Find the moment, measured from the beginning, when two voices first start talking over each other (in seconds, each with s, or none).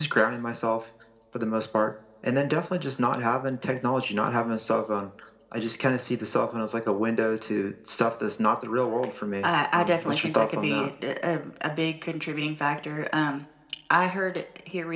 9.4 s